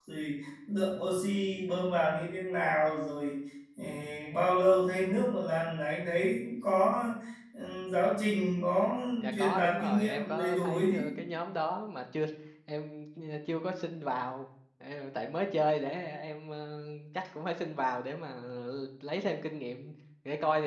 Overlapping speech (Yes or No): Yes